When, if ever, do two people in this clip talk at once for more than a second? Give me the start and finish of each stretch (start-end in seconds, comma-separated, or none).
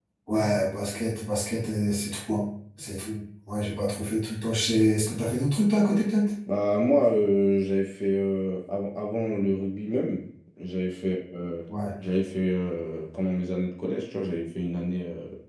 none